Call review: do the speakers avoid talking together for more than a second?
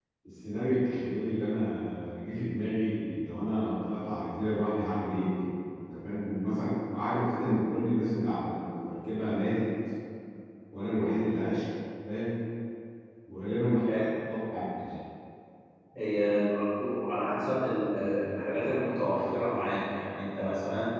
Yes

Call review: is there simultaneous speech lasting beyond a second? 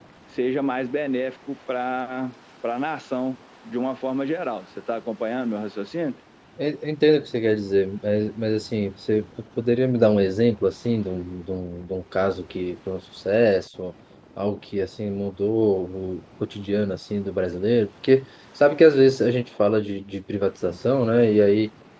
No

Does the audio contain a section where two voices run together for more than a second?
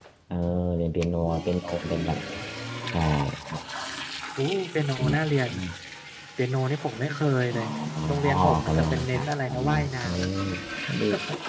Yes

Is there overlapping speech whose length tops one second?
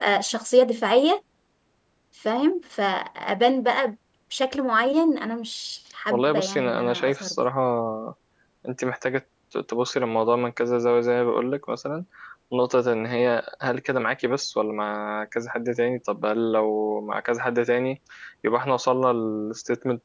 Yes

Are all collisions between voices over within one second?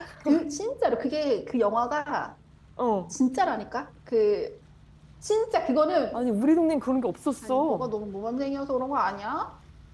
Yes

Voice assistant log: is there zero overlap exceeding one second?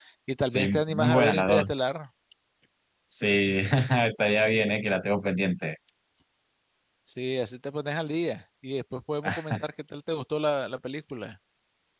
No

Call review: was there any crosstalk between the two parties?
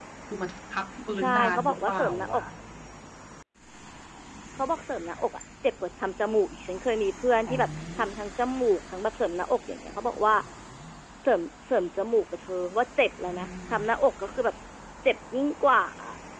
Yes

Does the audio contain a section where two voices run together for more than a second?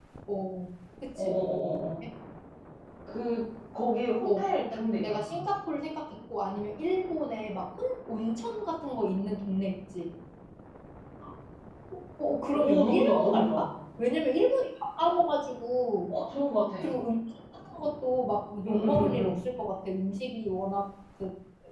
Yes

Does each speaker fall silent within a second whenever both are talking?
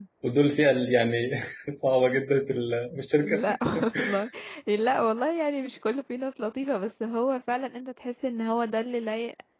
Yes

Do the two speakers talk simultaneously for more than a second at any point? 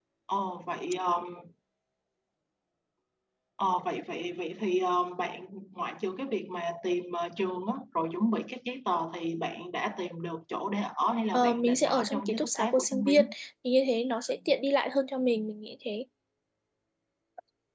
Yes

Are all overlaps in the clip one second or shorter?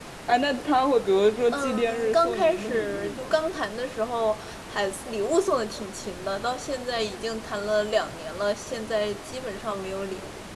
No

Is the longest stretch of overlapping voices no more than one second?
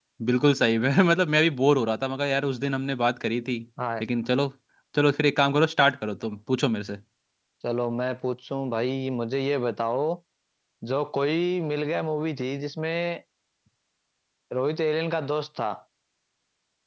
Yes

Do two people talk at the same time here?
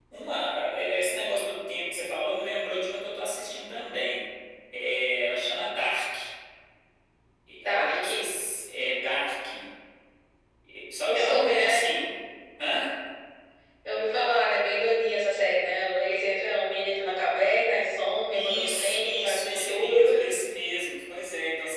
Yes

